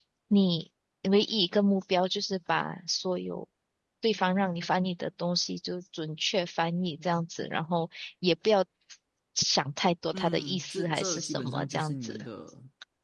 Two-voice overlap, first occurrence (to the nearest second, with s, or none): 10 s